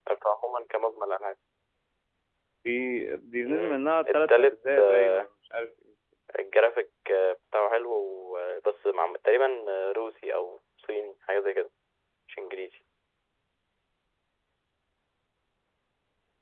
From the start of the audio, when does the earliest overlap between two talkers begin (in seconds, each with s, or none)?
3.5 s